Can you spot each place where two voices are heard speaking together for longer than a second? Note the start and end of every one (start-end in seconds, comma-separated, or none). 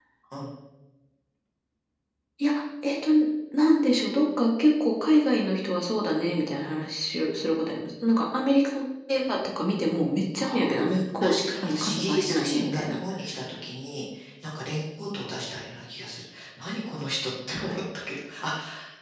11.2-13.0